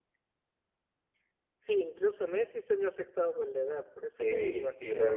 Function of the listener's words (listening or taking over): taking over